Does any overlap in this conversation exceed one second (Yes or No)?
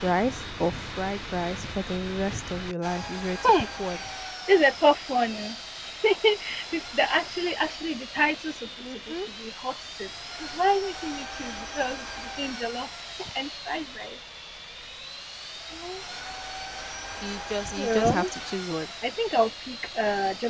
No